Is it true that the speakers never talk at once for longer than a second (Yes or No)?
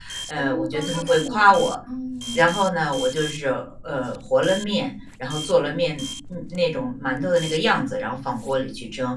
No